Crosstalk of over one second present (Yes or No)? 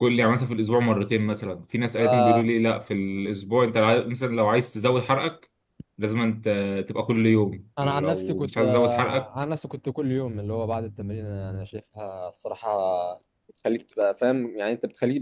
Yes